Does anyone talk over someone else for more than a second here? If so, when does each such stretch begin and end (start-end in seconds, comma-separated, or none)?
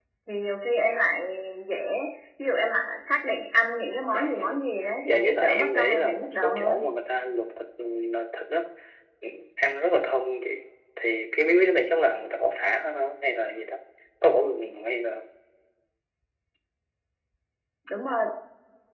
5.1-6.8